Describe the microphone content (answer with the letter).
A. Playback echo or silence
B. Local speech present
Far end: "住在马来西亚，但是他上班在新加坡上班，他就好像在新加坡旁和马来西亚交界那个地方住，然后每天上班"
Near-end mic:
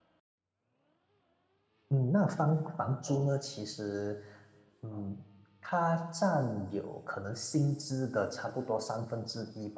B